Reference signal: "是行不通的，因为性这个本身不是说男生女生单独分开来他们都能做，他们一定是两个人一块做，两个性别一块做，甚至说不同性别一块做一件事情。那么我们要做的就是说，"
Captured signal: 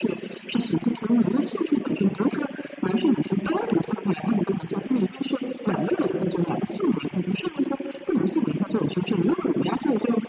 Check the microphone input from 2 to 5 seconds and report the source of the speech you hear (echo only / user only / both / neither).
echo only